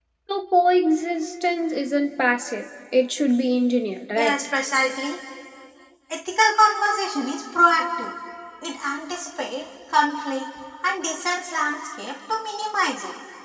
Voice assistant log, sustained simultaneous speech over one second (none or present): none